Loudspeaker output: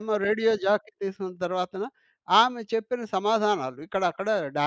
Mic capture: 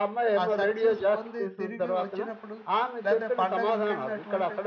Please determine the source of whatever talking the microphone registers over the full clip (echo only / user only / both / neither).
both